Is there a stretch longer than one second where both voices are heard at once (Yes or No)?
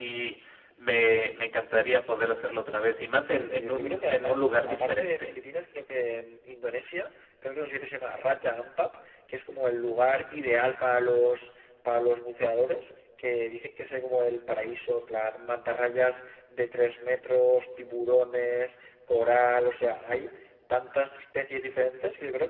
Yes